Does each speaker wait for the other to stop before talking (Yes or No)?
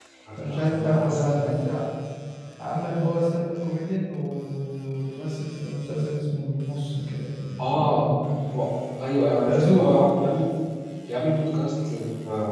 No